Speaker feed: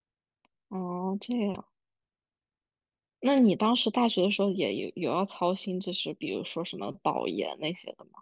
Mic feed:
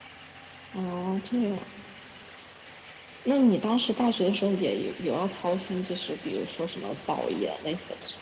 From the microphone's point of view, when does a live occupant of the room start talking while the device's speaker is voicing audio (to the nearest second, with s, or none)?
none